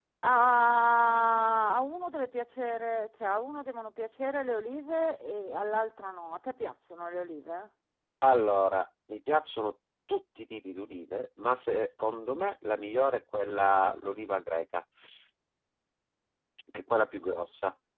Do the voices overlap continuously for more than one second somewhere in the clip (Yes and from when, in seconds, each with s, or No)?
No